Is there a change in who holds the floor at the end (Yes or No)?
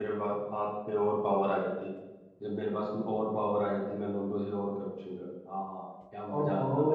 Yes